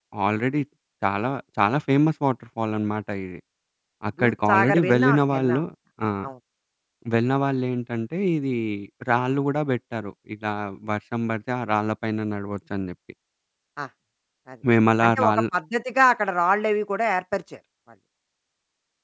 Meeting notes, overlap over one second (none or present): present